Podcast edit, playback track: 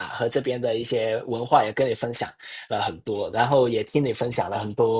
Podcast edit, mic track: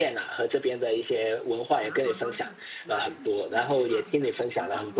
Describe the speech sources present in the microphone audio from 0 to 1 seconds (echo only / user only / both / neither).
echo only